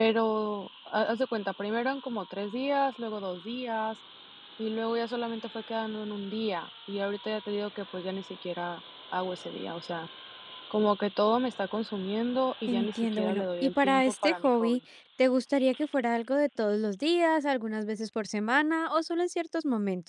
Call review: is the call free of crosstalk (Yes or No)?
No